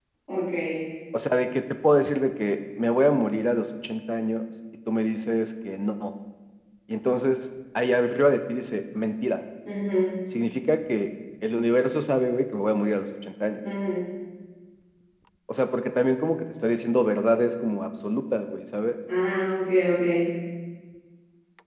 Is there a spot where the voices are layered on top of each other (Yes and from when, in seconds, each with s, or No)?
No